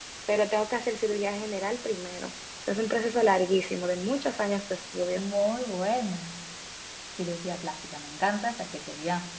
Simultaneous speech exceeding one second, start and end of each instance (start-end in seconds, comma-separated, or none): none